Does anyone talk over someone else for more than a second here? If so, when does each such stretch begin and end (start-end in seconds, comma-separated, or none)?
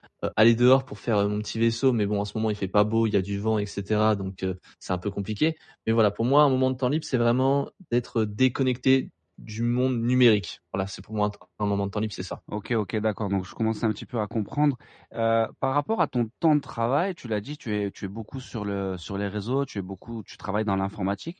none